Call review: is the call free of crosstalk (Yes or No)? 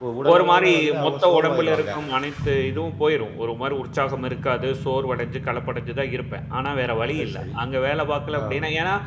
No